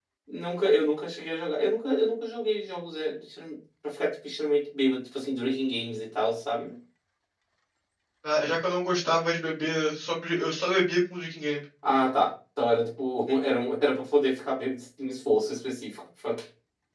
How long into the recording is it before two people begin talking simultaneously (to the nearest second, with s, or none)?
none